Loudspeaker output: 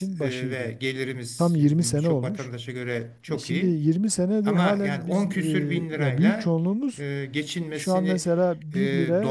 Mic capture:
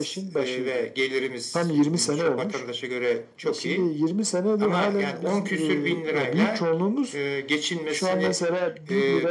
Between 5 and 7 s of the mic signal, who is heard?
echo only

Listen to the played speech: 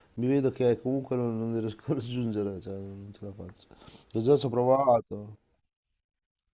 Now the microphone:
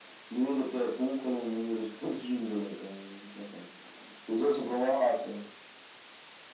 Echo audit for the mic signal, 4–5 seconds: echo only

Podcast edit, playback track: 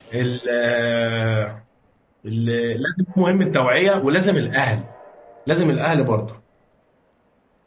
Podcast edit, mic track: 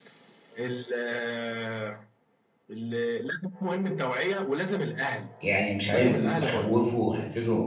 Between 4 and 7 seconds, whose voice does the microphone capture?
both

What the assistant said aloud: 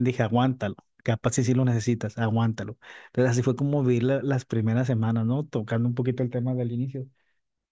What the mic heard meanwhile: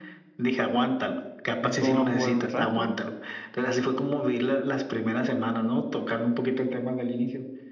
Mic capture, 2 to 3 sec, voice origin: both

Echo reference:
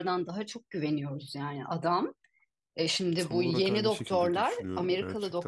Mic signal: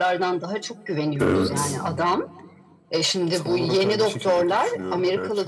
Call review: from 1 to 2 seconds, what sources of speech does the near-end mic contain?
both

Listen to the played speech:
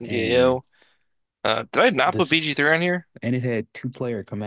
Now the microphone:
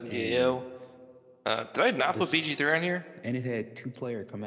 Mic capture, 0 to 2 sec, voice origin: echo only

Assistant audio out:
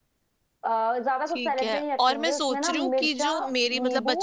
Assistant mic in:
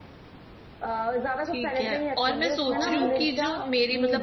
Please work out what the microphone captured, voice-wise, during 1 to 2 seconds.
echo only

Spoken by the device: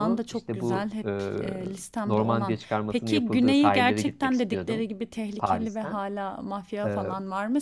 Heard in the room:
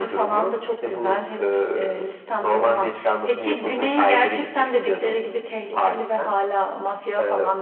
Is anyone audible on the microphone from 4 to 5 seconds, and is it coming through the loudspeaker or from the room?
echo only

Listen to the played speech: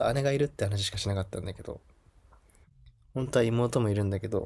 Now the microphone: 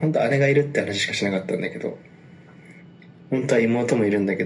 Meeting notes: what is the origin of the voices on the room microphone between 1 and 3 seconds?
echo only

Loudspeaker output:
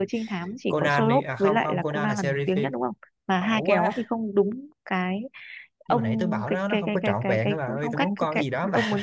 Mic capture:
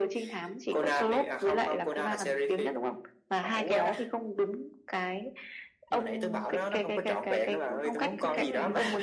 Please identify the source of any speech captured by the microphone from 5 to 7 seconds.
echo only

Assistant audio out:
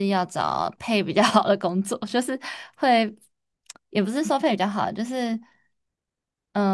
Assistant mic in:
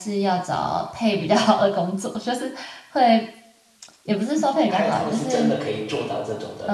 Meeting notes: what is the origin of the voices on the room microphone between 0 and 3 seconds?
echo only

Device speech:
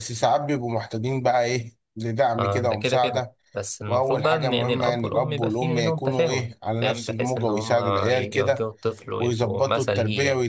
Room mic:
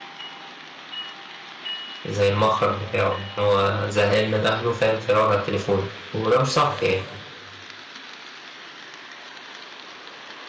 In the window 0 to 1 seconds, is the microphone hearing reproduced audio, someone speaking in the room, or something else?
neither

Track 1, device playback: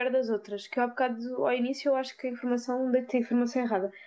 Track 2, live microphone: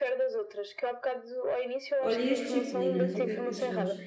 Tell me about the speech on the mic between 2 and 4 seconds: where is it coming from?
both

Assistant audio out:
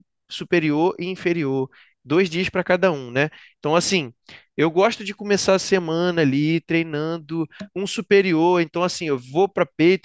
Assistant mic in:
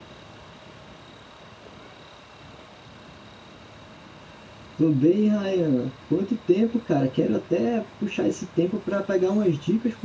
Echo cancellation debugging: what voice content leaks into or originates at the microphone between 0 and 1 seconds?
neither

